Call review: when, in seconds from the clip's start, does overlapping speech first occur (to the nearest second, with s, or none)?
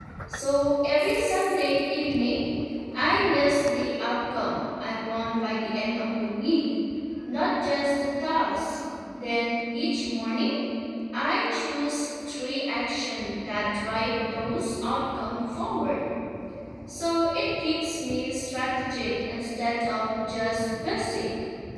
none